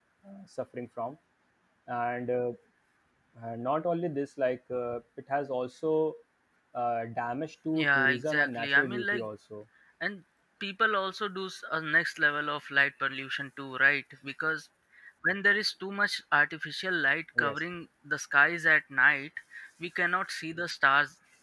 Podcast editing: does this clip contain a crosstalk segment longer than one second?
Yes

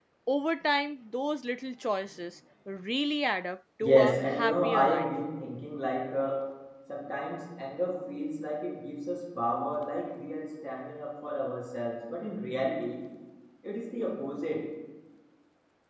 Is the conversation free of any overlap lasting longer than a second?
No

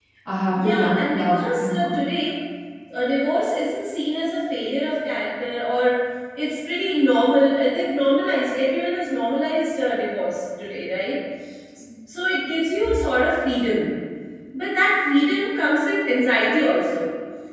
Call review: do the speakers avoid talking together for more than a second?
No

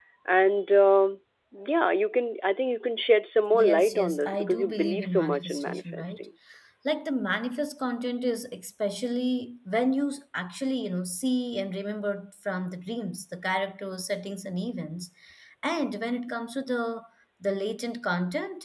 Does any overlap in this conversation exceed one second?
Yes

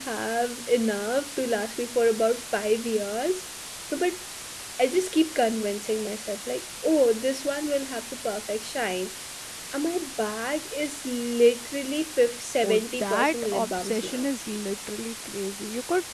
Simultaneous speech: Yes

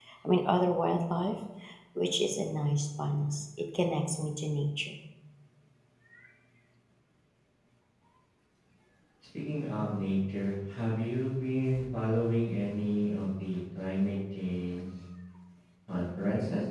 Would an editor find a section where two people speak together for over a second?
No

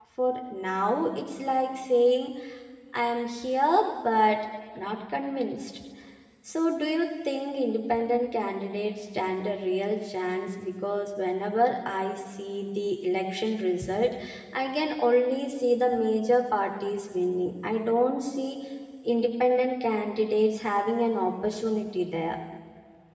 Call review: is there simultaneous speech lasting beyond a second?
No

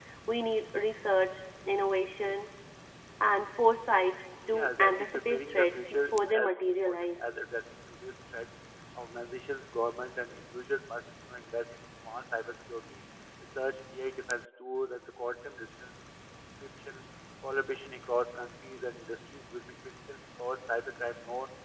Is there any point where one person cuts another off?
Yes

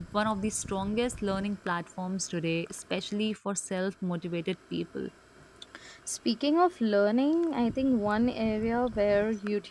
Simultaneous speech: No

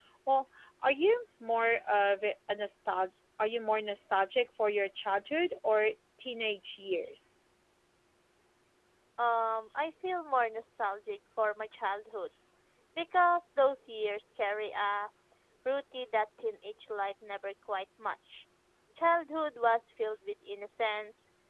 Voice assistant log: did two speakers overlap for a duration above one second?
No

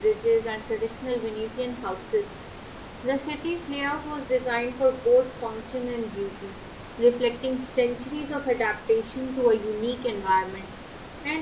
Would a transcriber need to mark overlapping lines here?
No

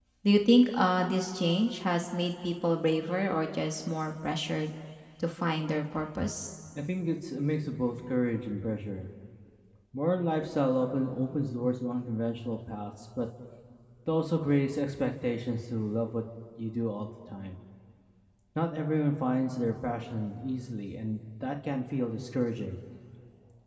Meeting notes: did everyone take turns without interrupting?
Yes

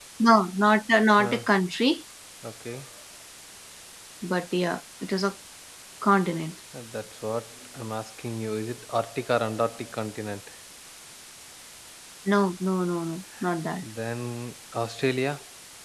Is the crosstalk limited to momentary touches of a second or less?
Yes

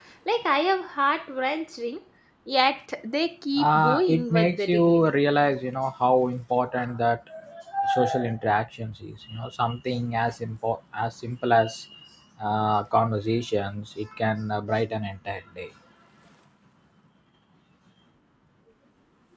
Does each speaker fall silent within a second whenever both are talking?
No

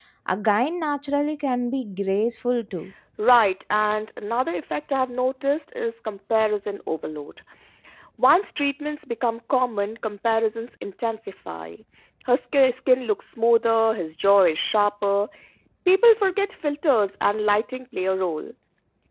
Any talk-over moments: No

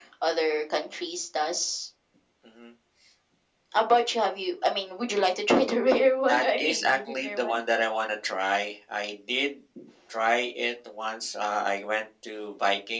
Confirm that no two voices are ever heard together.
No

